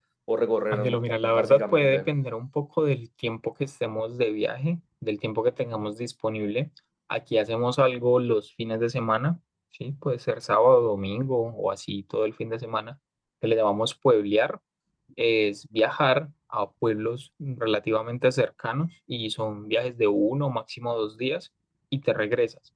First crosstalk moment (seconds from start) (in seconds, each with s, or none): 0.7 s